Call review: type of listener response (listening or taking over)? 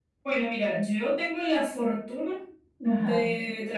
listening